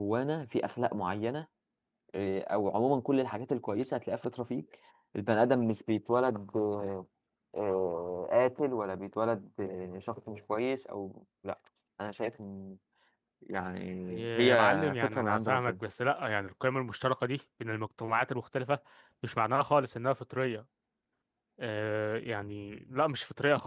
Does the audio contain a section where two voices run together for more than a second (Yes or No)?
Yes